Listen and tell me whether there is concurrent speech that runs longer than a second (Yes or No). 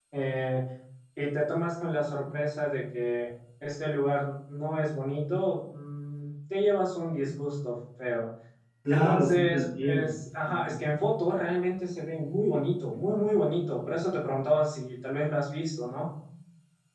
Yes